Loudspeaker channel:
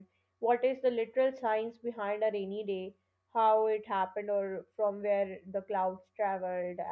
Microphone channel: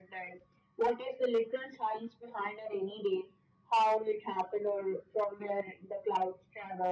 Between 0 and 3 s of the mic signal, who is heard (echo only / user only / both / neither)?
echo only